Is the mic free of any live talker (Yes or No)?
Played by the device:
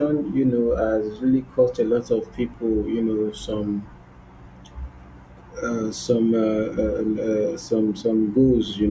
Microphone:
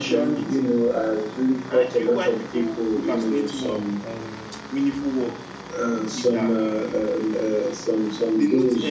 No